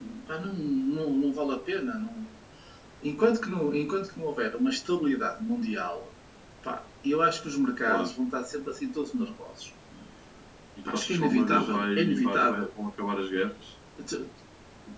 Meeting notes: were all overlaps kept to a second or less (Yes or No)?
No